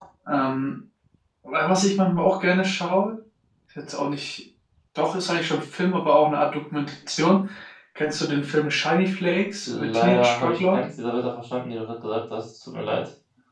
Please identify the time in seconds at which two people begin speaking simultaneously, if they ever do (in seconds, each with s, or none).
9.6 s